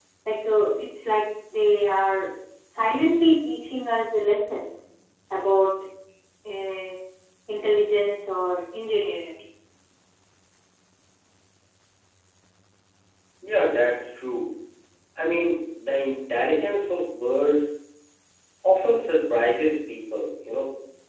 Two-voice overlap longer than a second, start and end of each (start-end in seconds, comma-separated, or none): none